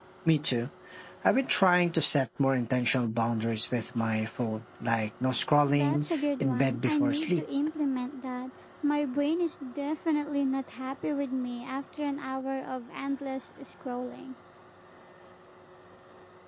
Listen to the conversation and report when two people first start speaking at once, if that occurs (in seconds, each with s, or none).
5.7 s